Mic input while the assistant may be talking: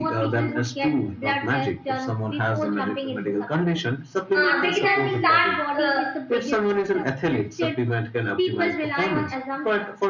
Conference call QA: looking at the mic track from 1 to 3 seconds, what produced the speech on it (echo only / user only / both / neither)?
echo only